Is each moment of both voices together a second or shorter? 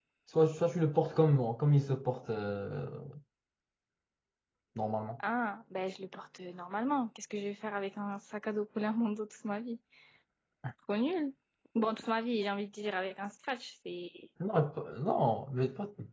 Yes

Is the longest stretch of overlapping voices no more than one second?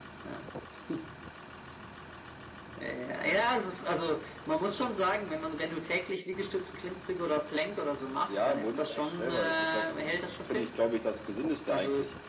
No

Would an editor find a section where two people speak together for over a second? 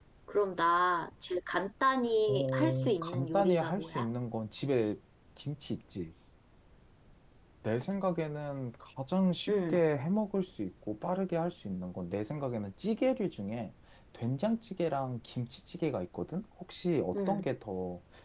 Yes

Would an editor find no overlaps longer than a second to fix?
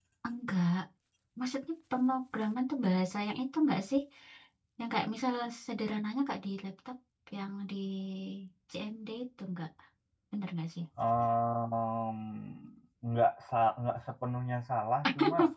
Yes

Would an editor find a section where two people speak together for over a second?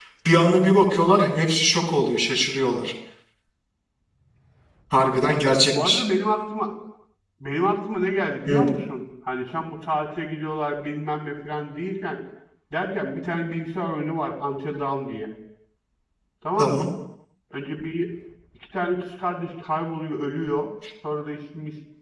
No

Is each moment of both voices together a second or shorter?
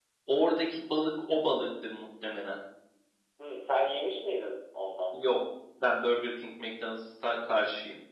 Yes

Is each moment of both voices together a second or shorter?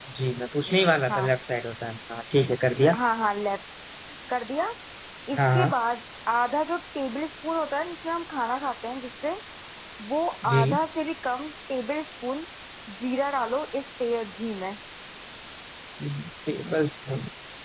Yes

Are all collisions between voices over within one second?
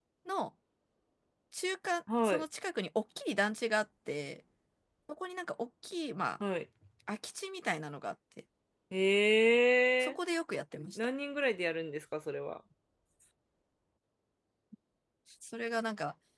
Yes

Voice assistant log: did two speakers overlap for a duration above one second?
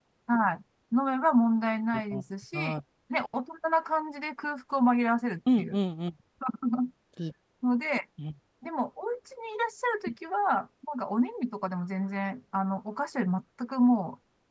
No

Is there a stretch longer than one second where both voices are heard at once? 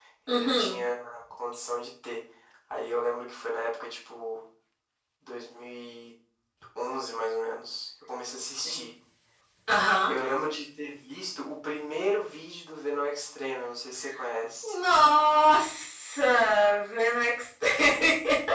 No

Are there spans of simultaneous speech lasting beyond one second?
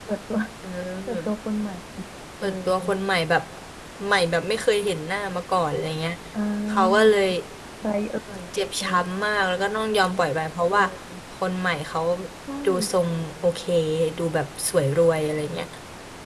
No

